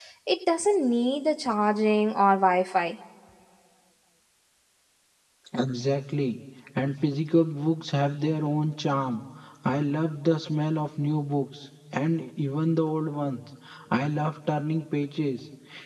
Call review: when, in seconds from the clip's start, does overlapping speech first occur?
none

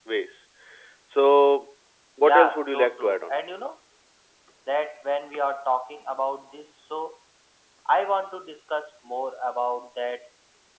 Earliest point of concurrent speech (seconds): 2.2 s

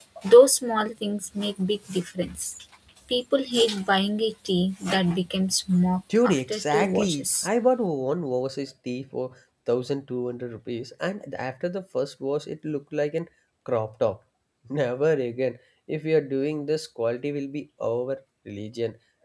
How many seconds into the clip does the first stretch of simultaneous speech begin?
6.1 s

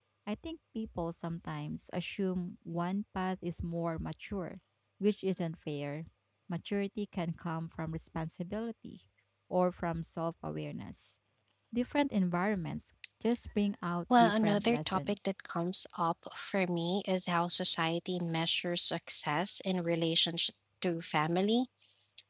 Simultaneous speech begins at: 14.1 s

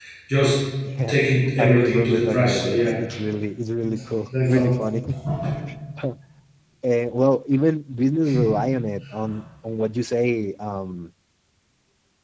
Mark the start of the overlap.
1.6 s

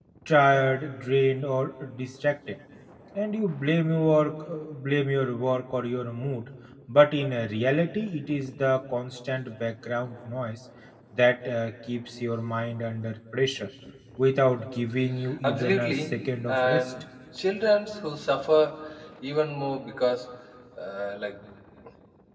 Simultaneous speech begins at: 15.4 s

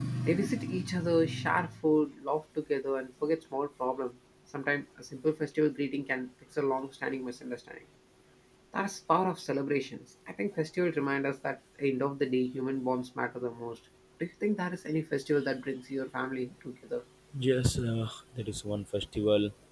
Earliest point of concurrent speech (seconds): none

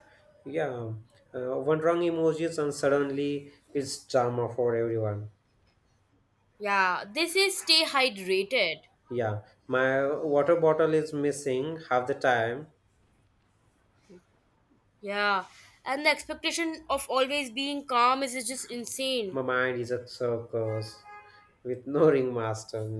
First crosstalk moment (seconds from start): none

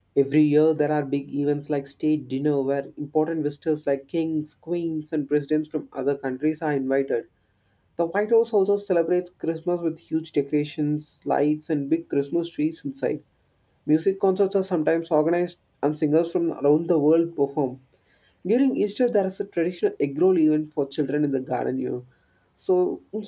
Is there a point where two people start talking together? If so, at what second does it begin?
none

